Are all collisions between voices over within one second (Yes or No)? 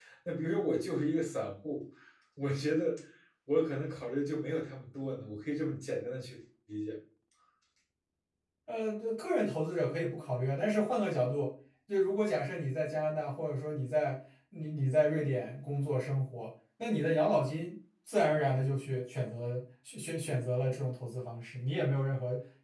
Yes